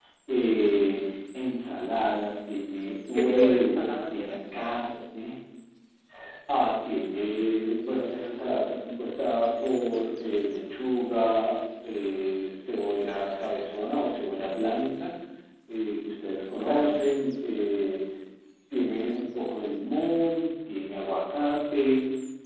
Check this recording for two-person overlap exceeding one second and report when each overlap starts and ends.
3.1-4.4

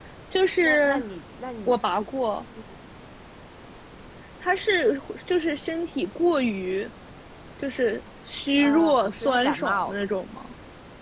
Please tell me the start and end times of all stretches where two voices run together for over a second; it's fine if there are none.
8.6-10.0

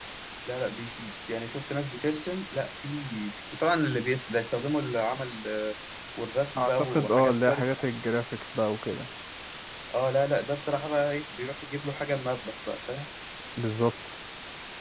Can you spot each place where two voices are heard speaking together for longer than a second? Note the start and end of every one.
6.6-7.9

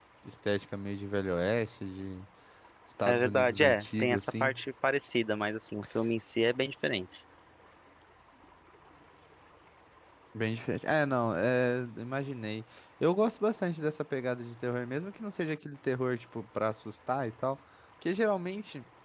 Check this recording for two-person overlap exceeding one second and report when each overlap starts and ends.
3.1-4.5

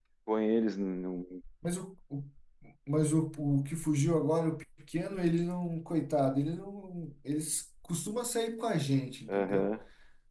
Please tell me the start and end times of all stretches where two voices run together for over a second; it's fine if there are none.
none

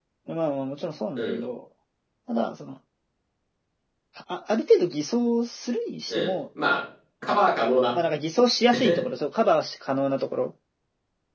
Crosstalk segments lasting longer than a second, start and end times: none

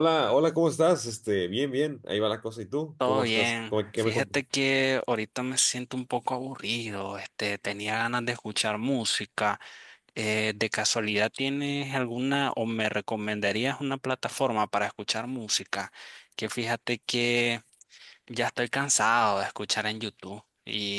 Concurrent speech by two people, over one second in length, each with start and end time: 3.0-4.4

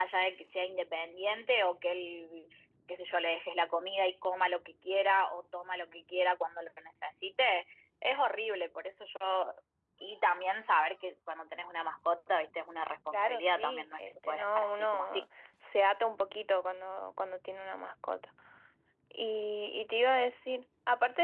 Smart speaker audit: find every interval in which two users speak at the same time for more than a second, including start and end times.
13.1-15.2

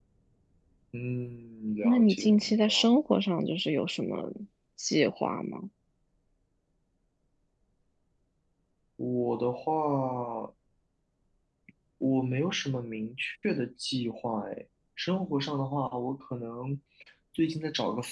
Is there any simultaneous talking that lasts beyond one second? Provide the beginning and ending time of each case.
1.8-3.0

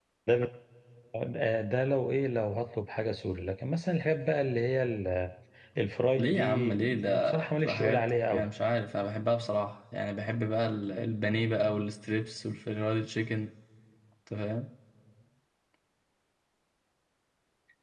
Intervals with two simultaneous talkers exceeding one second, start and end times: 6.2-8.5

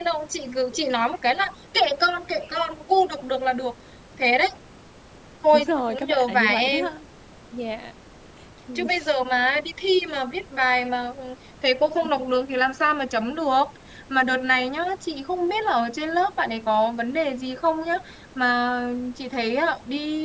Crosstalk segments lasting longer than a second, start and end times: 5.5-6.8

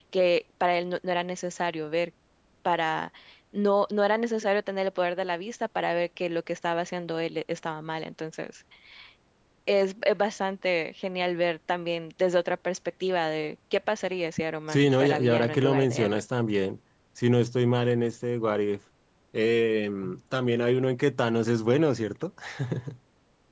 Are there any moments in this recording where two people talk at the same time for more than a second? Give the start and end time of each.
14.7-16.2

